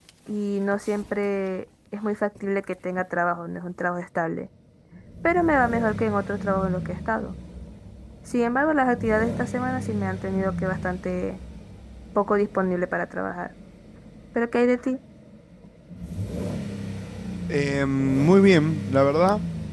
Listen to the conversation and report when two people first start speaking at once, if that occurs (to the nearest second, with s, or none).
none